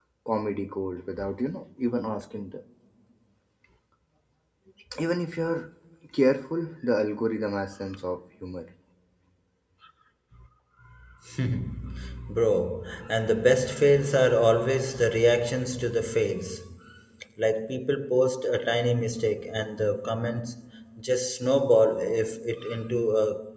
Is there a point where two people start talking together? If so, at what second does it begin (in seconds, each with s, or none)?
none